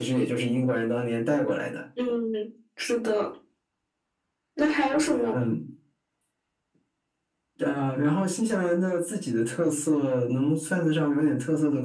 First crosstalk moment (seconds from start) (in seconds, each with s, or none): none